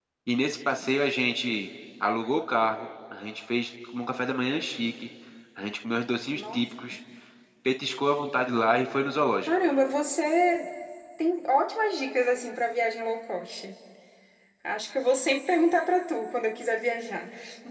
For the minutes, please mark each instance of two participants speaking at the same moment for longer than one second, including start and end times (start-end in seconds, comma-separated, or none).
none